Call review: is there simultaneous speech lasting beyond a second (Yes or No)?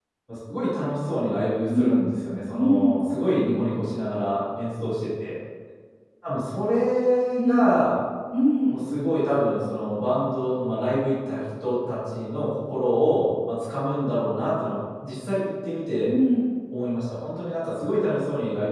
No